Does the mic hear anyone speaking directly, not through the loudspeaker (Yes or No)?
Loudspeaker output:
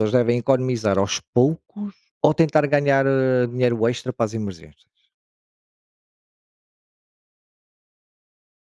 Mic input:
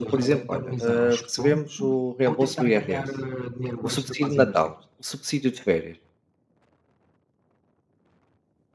Yes